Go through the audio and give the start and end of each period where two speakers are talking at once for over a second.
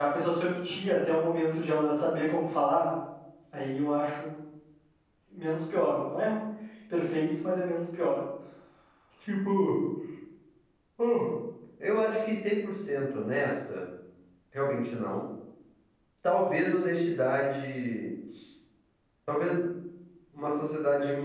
none

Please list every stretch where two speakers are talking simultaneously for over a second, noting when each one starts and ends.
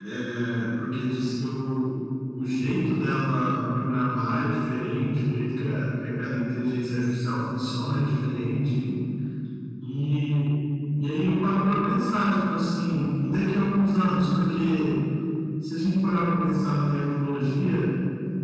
none

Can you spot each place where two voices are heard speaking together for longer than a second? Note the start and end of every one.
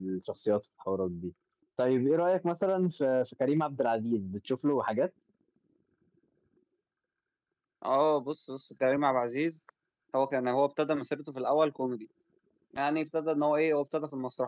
none

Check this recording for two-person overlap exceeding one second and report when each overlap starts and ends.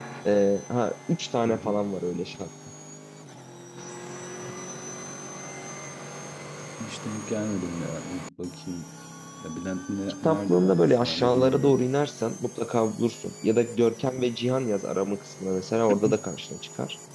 10.2-11.9

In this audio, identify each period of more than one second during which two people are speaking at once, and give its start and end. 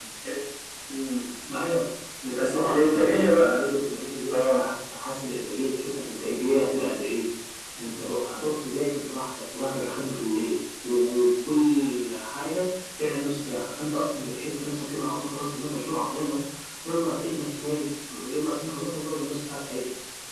2.3-3.7

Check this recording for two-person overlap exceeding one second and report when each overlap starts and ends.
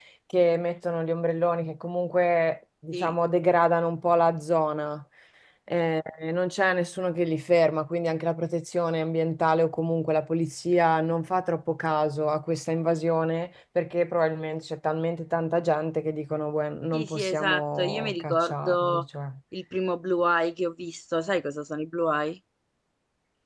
16.9-19.0

